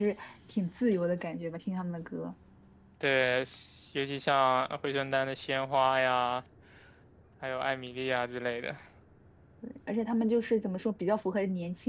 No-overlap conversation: Yes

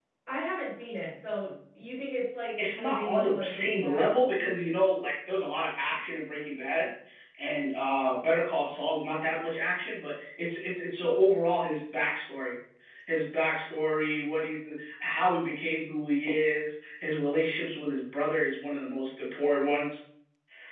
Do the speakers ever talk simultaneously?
Yes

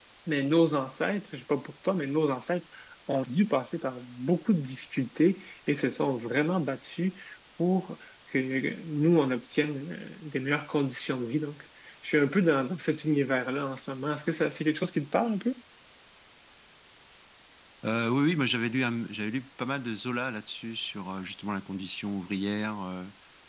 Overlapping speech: No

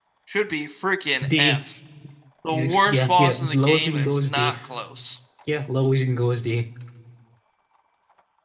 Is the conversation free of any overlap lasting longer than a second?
No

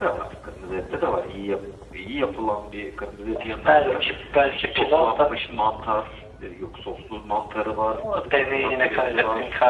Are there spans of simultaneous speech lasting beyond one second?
Yes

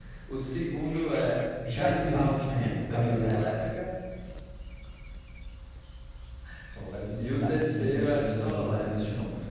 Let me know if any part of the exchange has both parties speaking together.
Yes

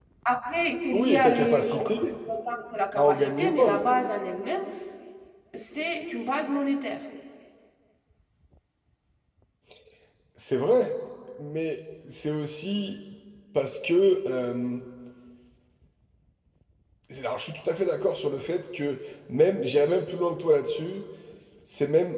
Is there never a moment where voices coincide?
No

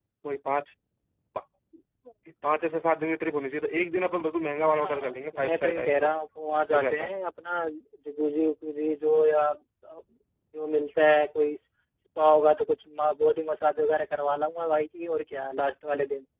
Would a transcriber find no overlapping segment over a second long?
No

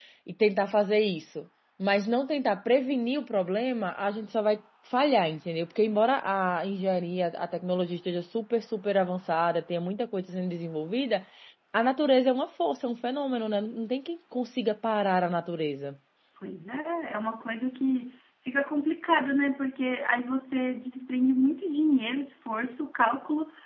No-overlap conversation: Yes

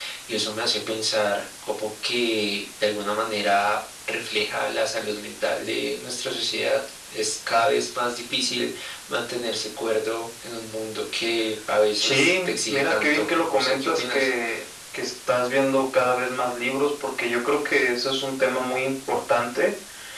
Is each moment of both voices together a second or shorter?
No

